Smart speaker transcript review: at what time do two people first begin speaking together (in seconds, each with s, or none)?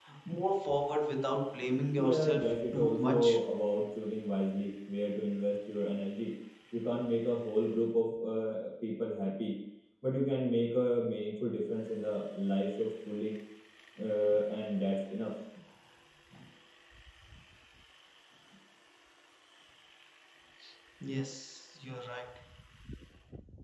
2.0 s